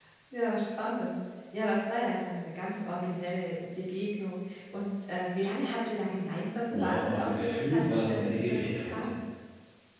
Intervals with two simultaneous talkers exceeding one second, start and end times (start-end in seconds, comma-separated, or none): 6.7-9.1